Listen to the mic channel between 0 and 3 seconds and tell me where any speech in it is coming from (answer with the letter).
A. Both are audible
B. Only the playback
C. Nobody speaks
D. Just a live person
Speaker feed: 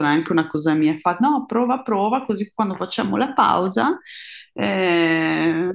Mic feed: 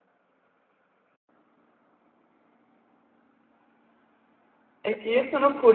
C